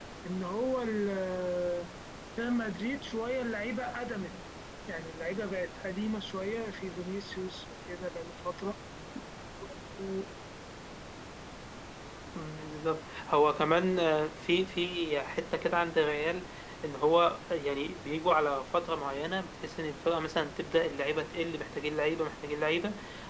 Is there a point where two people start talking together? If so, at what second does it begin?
none

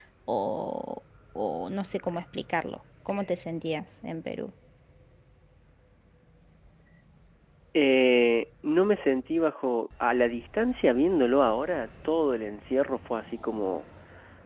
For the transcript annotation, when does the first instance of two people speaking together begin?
none

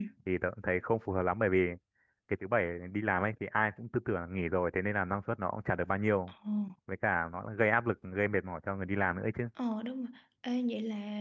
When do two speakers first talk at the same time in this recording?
none

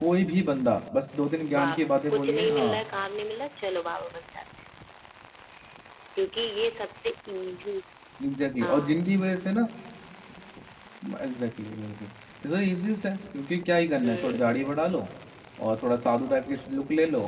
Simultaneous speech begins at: 1.6 s

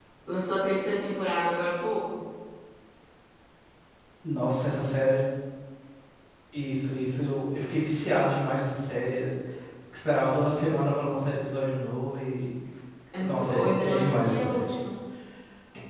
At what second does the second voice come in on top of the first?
13.2 s

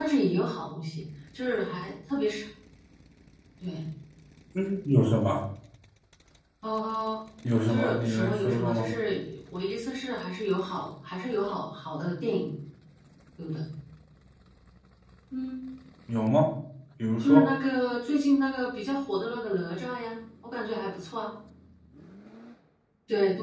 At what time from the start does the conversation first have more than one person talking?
7.7 s

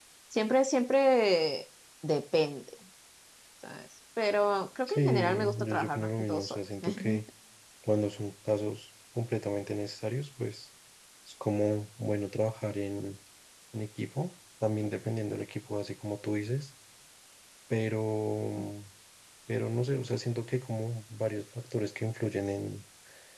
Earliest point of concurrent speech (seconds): 4.9 s

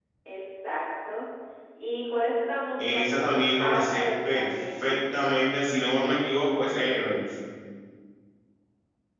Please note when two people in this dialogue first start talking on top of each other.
2.8 s

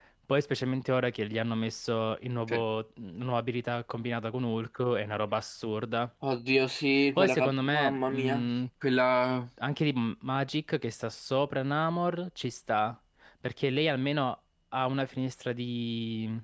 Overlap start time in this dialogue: 7.2 s

